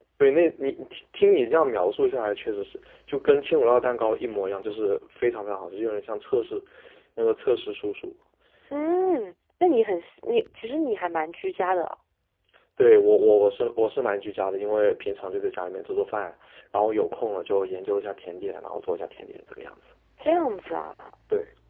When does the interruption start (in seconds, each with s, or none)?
none